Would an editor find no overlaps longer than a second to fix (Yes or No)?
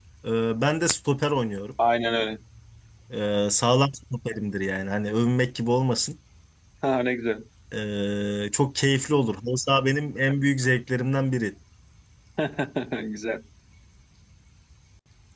Yes